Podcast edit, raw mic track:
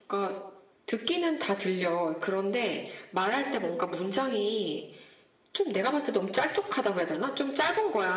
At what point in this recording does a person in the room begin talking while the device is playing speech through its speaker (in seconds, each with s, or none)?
none